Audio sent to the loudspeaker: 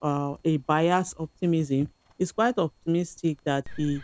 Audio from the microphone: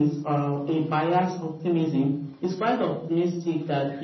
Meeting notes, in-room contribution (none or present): none